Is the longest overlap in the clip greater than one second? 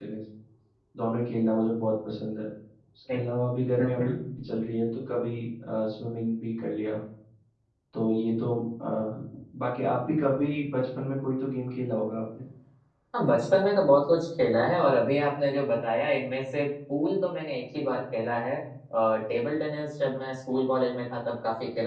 No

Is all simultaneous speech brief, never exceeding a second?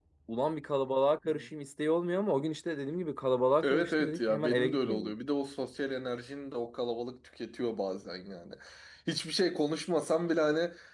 No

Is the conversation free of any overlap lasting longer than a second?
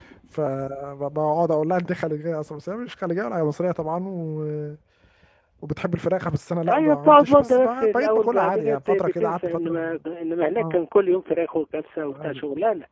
No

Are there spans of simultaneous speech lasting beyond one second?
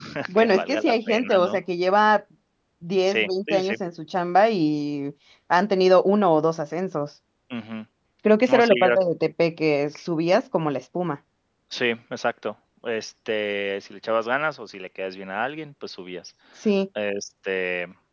Yes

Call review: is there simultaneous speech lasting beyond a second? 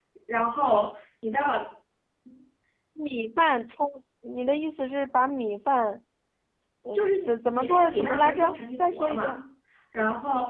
Yes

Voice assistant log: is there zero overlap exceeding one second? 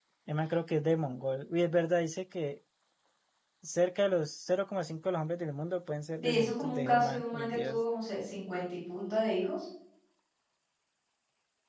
No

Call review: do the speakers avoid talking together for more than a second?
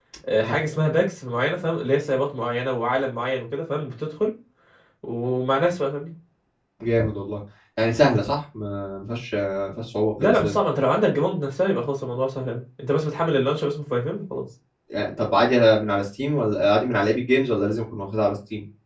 Yes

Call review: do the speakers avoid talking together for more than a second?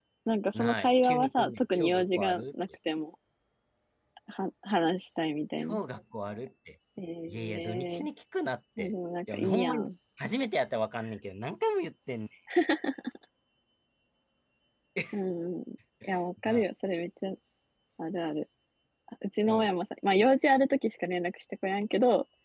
No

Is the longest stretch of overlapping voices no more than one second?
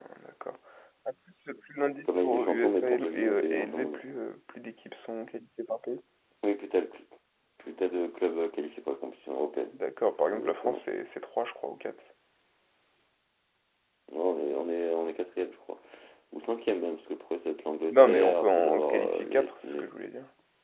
No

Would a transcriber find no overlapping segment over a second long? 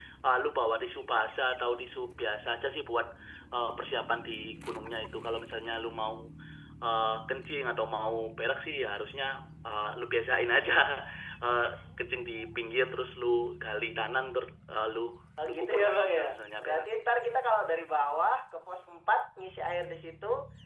No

